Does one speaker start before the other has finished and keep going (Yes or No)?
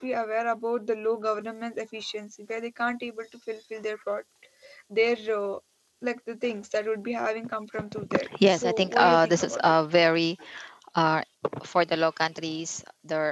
Yes